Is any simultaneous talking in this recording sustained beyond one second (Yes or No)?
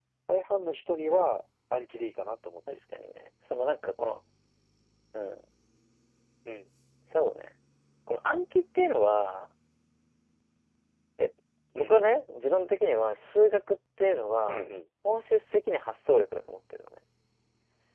No